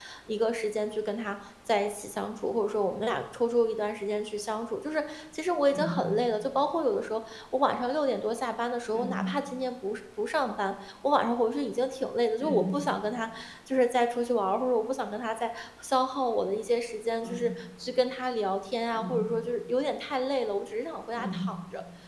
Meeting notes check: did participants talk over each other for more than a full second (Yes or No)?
No